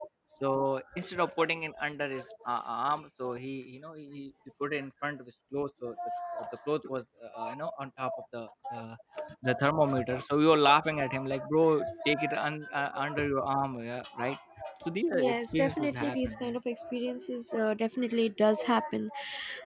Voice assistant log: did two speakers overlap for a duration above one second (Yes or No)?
Yes